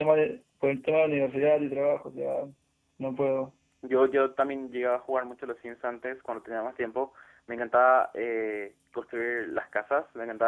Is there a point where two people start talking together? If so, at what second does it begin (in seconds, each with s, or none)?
none